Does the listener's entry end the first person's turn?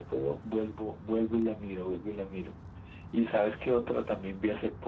No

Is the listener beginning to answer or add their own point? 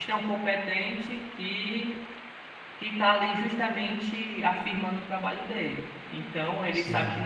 No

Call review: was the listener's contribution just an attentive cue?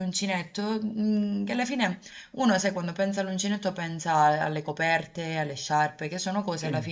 No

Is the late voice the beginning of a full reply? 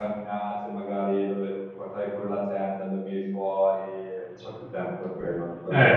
Yes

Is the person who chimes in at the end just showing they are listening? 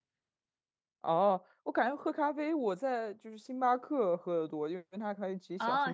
No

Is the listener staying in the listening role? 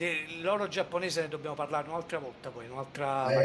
No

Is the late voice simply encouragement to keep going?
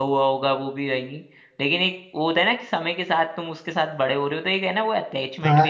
No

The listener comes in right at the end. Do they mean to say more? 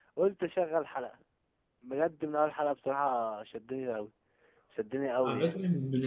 Yes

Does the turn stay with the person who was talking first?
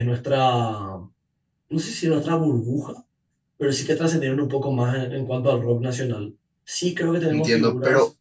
No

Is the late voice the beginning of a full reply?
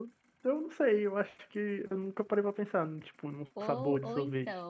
Yes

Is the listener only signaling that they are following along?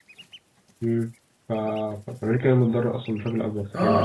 No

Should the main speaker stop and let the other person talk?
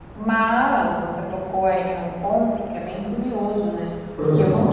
No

